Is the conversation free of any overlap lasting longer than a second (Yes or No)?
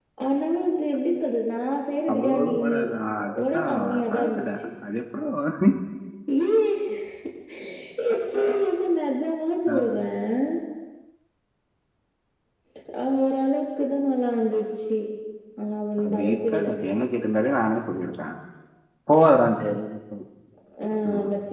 No